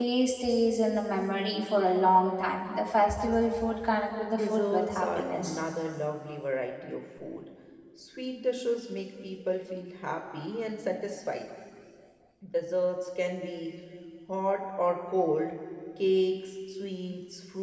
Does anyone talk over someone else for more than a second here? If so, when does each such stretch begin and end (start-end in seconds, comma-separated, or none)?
4.3-5.6